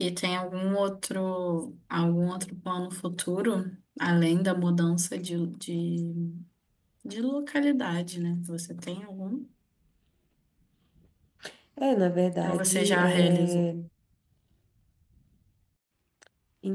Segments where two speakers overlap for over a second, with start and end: 12.4-13.7

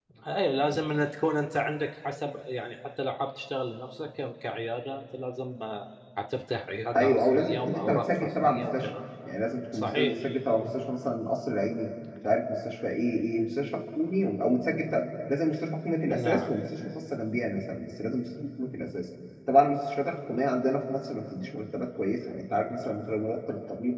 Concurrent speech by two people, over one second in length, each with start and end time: 7.0-8.9

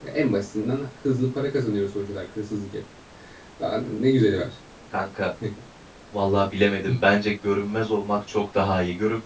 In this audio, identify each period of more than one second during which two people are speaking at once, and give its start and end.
none

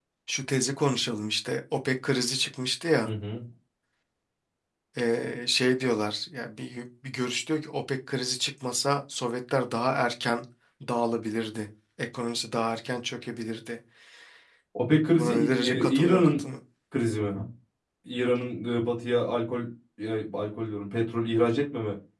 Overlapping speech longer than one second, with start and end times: 15.1-16.3

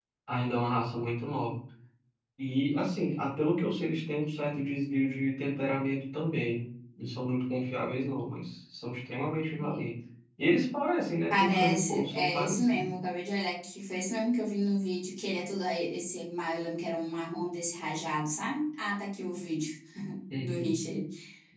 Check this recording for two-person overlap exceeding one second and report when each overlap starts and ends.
11.3-12.9

